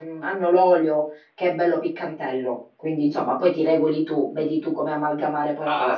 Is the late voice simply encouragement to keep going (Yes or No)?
No